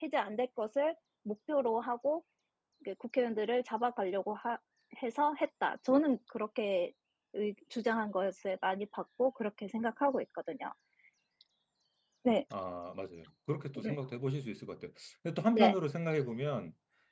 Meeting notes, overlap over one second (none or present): none